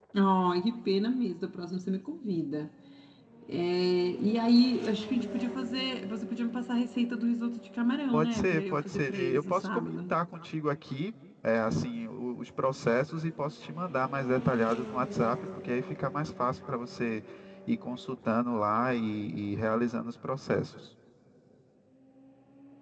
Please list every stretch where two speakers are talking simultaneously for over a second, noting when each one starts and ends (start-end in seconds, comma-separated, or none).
8.1-10.1